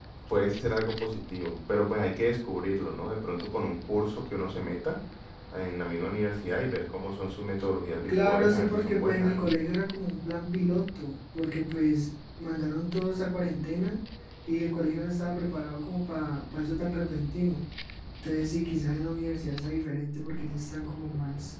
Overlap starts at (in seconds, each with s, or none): 8.1 s